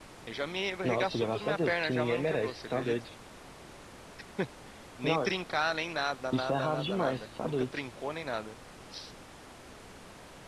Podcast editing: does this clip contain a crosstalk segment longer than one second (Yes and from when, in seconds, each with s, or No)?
Yes, from 0.8 s